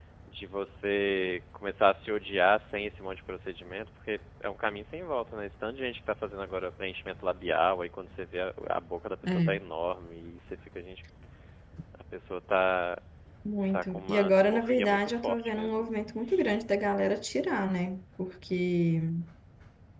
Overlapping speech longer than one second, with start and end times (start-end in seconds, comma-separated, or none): 13.7-15.9